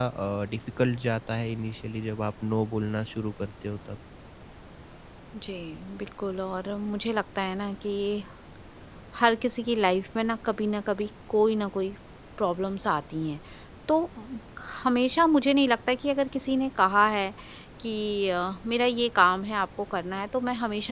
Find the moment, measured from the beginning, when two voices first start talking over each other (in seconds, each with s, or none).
none